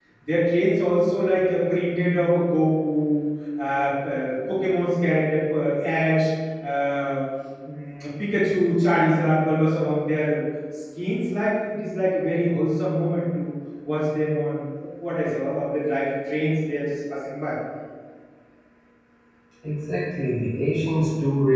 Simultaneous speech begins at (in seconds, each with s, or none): none